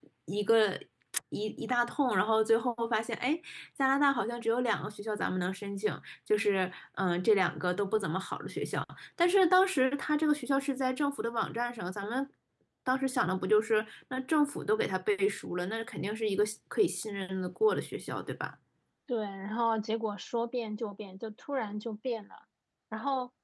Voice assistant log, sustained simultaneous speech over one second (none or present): none